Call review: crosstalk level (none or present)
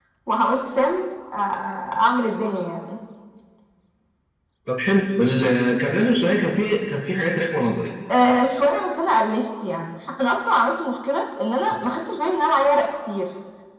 none